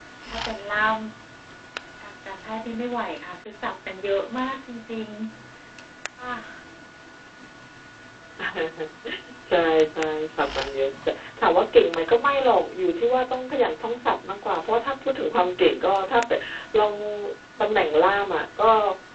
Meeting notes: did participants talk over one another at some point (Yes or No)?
No